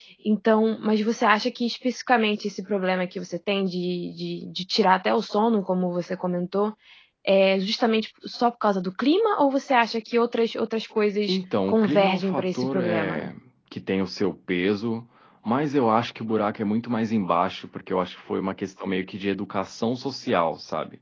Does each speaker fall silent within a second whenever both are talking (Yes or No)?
No